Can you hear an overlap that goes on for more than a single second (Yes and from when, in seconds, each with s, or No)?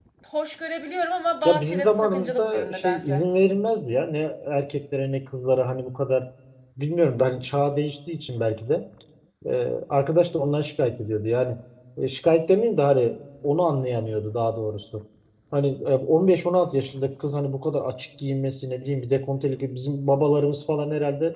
Yes, from 1.4 s